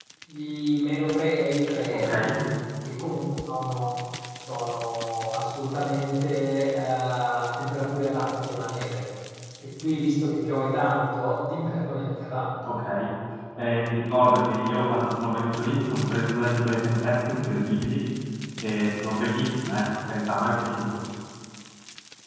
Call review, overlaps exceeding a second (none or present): none